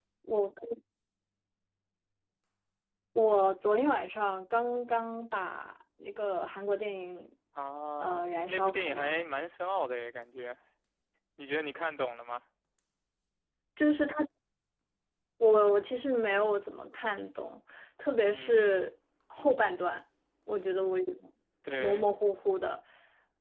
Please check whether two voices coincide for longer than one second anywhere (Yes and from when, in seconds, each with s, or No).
Yes, from 8.0 s